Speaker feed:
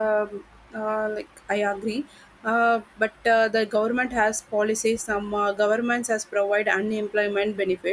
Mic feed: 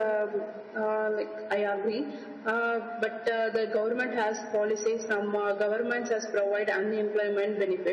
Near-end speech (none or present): none